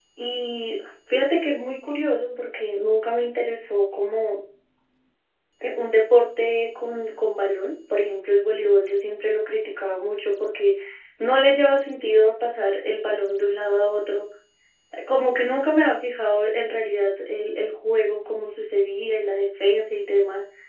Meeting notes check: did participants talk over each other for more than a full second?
No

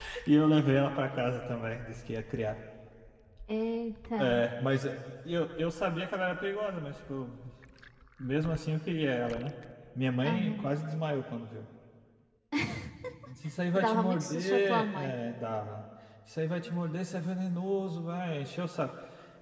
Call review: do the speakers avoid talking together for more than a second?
No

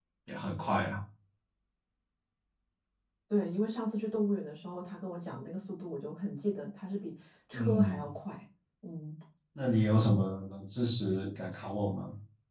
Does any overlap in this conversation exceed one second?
No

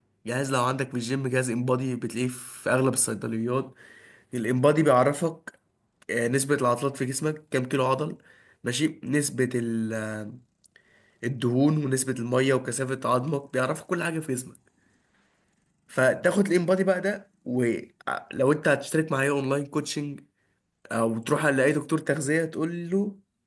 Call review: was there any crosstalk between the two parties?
No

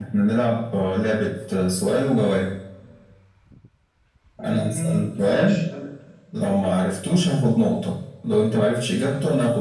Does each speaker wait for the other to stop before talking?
No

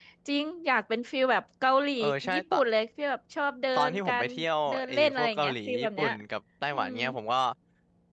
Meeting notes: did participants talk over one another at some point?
Yes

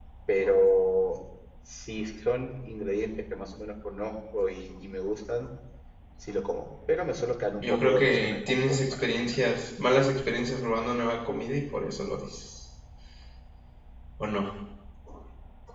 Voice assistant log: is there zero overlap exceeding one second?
No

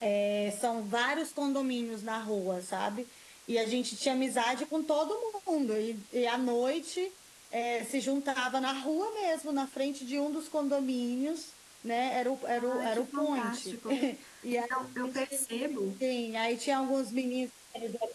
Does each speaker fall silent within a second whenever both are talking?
No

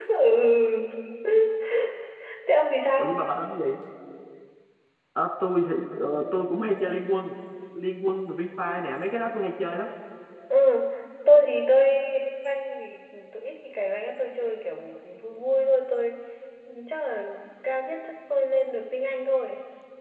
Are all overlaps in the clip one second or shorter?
Yes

